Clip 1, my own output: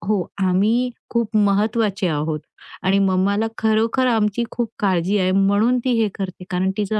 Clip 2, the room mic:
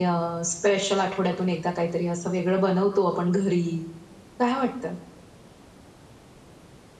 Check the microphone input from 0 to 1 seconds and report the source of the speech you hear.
user only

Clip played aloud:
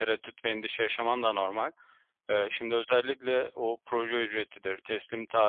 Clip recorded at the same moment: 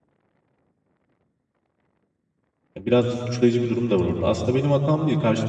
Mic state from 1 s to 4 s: user only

